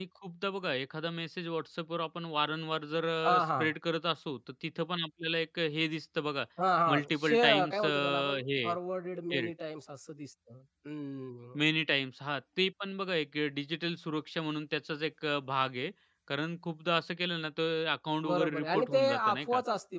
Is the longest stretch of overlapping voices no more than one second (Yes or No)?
No